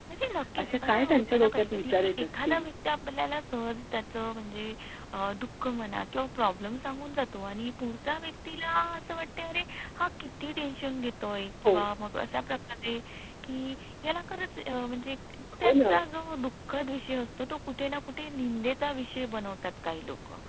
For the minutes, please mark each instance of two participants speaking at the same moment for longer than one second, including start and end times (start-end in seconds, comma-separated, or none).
0.6-2.6